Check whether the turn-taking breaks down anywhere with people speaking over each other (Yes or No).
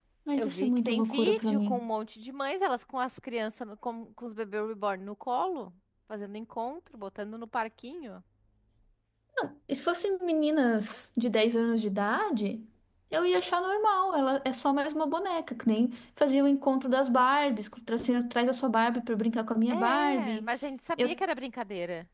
Yes